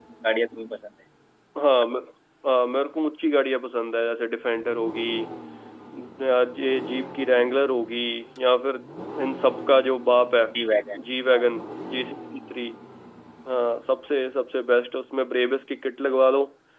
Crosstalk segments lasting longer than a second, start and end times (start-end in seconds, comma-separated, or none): none